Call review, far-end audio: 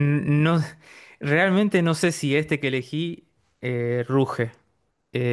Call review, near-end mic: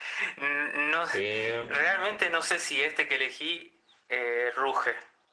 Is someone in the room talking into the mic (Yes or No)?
Yes